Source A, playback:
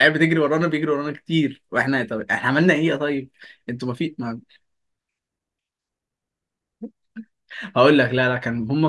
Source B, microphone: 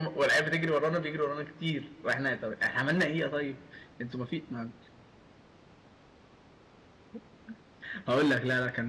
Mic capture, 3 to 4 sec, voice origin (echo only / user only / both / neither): echo only